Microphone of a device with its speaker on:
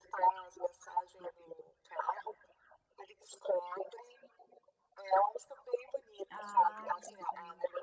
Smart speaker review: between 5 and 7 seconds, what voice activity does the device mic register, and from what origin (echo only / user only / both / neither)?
both